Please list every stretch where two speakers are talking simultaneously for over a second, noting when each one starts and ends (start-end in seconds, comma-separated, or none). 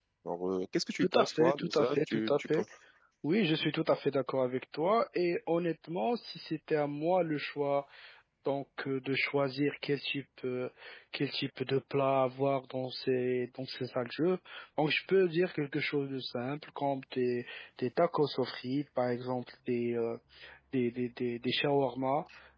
1.2-2.6